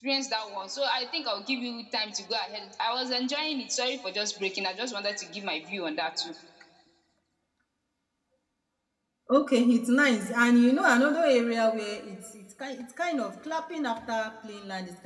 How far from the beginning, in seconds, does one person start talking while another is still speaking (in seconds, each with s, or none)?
none